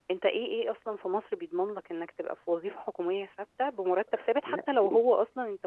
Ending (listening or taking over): listening